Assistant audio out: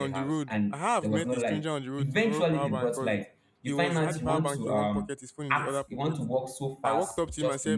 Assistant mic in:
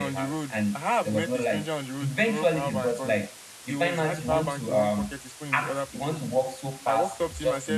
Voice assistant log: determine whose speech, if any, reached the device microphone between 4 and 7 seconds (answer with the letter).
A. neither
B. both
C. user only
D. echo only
D